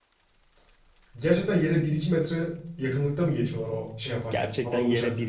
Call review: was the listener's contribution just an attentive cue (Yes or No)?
No